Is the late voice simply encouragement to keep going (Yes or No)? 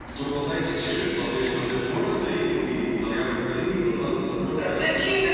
No